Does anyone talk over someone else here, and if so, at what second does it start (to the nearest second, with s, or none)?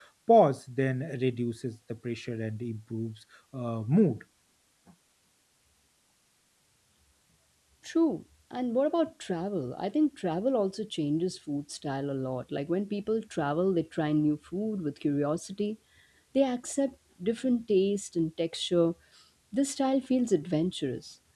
none